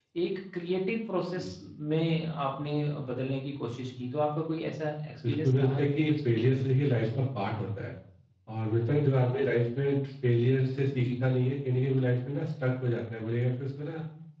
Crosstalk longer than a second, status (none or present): present